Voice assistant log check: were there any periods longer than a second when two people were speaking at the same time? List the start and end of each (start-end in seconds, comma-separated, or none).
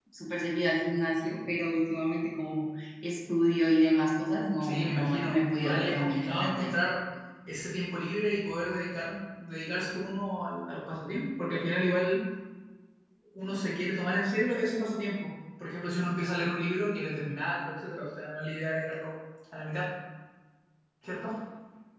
4.6-6.7